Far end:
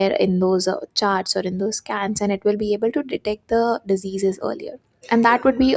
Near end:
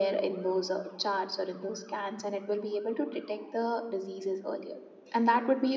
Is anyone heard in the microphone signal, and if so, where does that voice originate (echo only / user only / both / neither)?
echo only